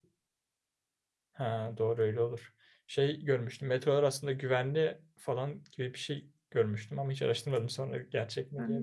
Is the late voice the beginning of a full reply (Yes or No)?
Yes